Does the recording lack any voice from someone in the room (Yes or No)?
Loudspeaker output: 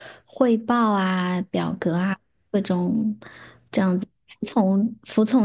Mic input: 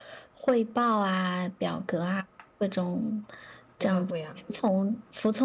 No